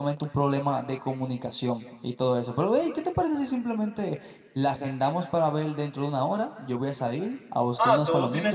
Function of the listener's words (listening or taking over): taking over